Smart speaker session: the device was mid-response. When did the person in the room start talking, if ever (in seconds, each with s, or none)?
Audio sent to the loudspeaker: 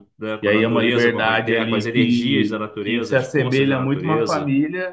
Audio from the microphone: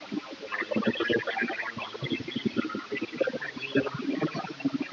none